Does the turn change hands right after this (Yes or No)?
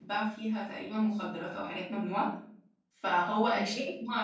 No